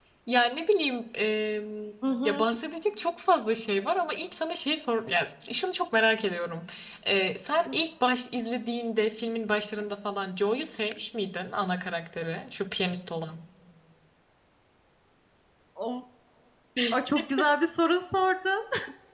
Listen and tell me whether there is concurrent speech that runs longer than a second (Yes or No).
No